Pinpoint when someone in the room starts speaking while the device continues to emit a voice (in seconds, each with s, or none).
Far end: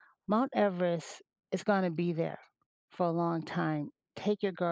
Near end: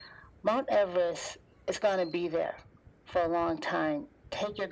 none